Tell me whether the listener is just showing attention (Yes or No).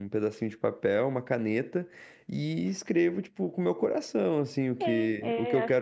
No